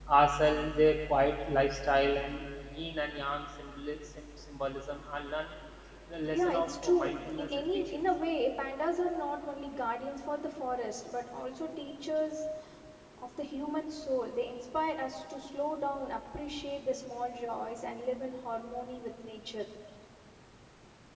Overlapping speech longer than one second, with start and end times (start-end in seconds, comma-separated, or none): 6.3-8.0